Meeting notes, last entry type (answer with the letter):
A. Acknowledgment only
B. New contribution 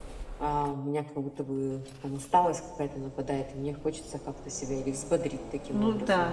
B